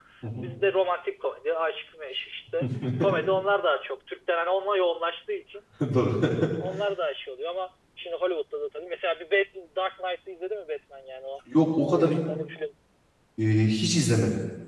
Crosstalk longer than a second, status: none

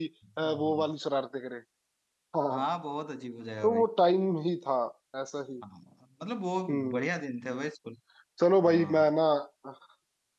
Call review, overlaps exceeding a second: none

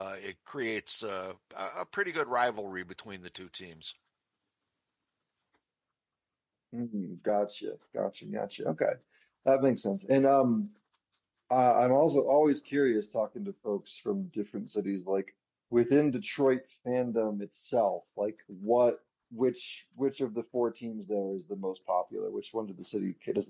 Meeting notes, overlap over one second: none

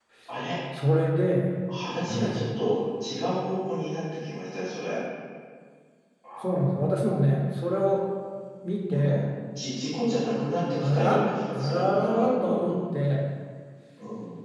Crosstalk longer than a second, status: present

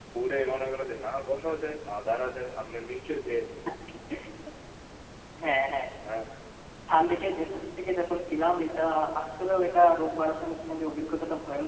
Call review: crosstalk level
none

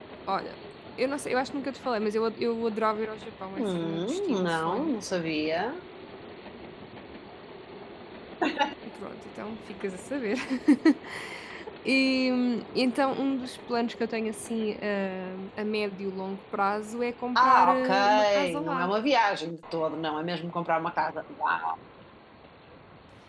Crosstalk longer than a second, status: present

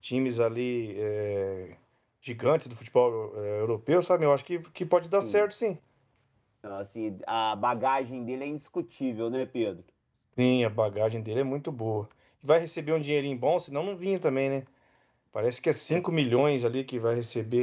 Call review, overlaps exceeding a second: none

